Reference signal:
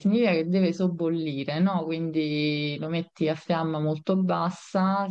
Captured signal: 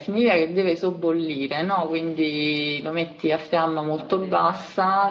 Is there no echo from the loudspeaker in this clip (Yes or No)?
No